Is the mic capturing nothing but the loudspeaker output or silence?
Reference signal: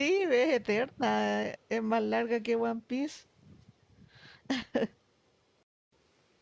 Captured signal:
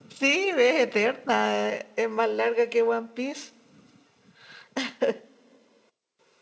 Yes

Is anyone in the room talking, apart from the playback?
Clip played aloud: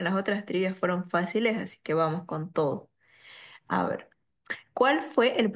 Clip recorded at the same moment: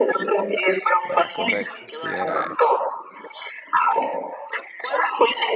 Yes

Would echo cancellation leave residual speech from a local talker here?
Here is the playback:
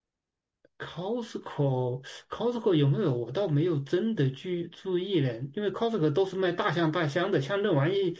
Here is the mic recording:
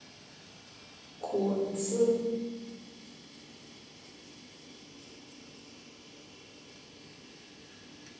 Yes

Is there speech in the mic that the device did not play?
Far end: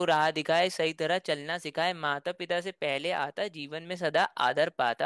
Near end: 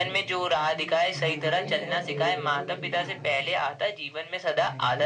Yes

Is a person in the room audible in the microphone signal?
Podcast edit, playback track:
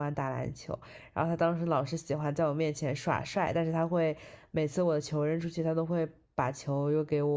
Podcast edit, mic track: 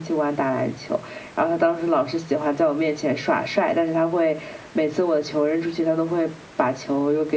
No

